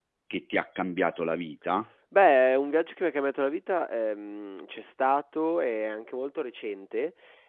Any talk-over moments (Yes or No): No